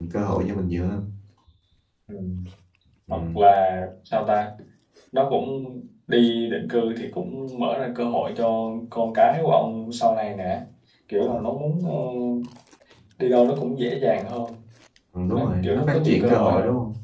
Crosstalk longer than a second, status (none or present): present